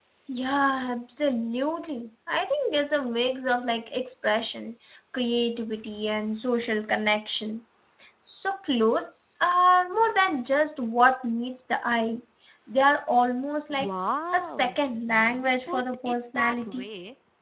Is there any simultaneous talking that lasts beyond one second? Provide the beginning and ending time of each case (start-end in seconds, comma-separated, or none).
14.3-16.9